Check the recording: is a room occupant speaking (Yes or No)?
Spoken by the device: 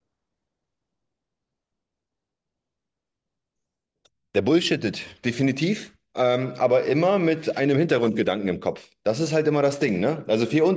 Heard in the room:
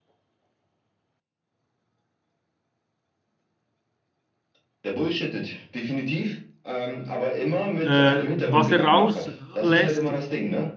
Yes